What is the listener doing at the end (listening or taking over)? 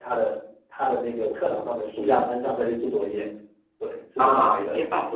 taking over